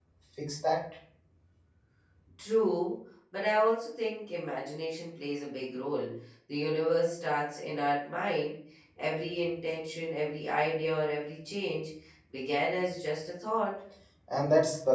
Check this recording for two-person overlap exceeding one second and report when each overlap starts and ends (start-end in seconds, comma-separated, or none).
none